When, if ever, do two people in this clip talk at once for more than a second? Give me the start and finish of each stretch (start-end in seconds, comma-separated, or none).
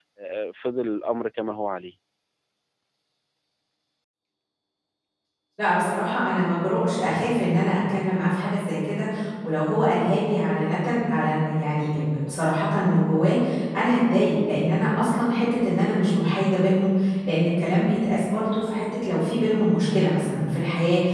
none